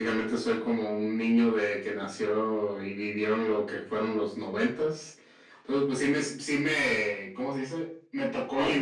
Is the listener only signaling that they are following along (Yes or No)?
Yes